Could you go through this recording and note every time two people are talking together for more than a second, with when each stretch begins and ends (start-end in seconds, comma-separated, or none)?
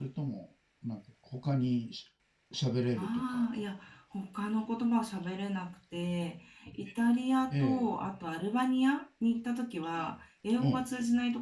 none